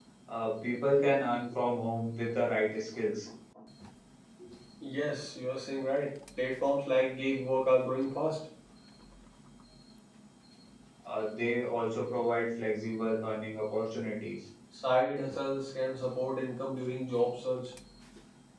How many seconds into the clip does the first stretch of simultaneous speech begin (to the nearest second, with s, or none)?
none